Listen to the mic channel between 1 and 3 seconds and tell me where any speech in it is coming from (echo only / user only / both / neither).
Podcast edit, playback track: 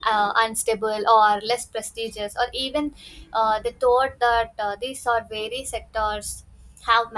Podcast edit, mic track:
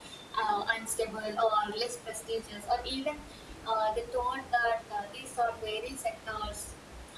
echo only